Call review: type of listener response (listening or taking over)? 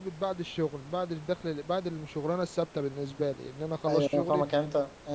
taking over